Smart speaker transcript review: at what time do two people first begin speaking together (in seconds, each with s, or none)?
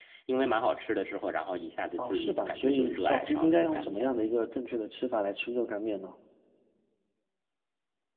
2.0 s